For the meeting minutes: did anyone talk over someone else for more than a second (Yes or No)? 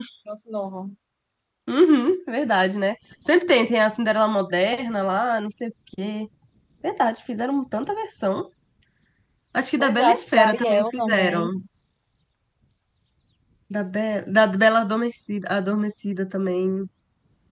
Yes